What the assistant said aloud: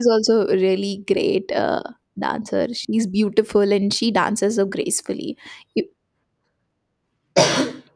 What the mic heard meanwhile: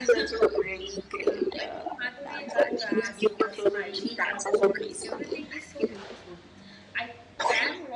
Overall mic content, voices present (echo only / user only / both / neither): both